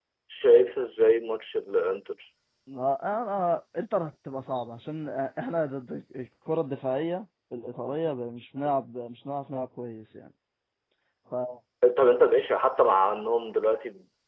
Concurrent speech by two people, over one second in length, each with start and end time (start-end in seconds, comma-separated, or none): none